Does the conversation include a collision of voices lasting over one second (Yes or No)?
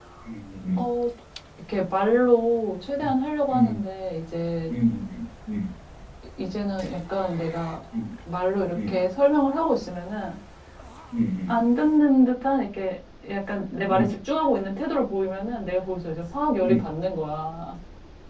No